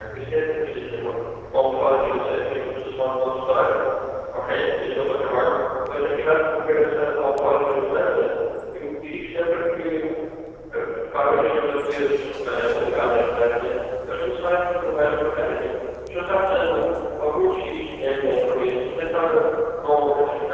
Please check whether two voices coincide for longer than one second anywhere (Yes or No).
No